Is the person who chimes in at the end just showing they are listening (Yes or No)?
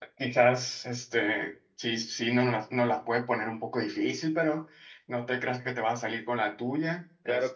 No